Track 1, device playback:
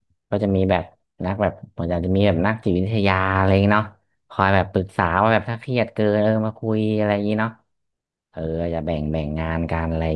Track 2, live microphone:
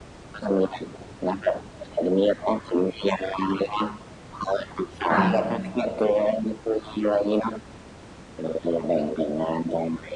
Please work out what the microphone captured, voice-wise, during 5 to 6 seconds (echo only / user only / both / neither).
both